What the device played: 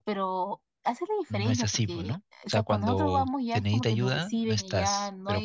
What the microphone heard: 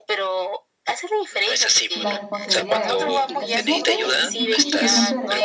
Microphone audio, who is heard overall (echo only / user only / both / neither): both